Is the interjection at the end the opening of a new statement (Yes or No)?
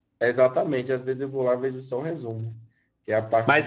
Yes